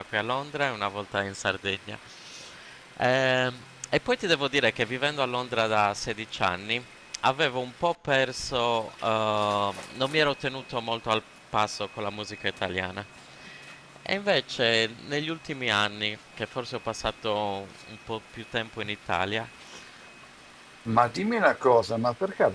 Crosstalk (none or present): none